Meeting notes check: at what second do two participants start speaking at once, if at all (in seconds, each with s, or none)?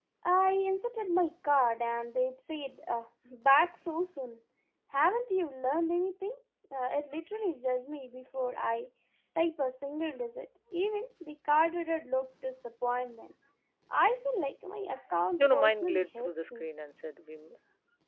15.4 s